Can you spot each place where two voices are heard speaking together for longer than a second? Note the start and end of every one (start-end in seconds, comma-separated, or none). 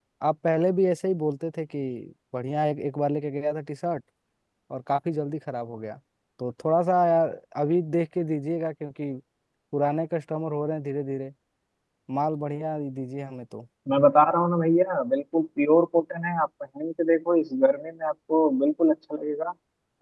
none